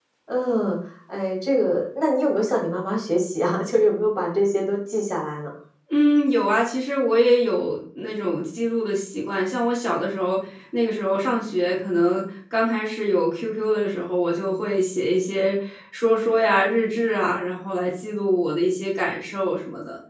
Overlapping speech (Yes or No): No